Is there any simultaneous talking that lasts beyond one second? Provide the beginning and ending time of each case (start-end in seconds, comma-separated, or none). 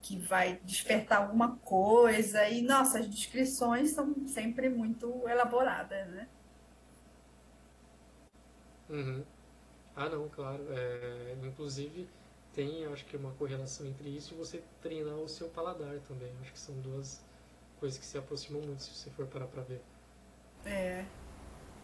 none